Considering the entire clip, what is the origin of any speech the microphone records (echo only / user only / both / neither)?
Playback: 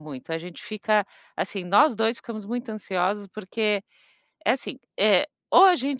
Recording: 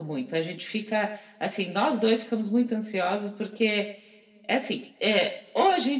echo only